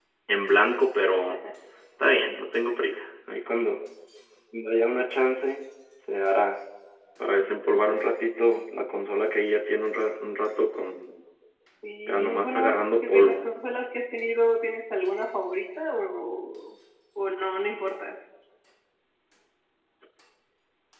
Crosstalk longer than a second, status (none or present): present